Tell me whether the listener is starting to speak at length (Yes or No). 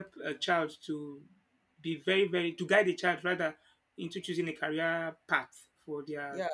Yes